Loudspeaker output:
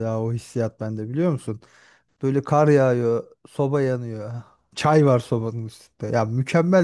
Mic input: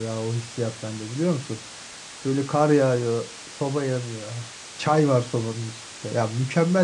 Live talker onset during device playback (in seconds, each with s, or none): none